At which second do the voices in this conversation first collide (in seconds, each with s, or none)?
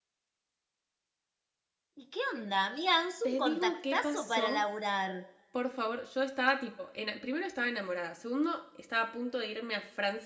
3.2 s